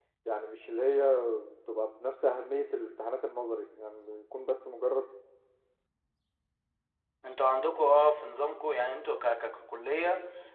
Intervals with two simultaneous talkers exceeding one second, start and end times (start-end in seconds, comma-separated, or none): none